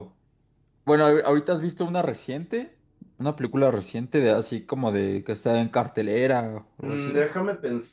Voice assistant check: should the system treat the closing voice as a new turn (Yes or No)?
Yes